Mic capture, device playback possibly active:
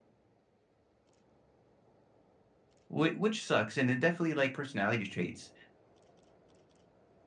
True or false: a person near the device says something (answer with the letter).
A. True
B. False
A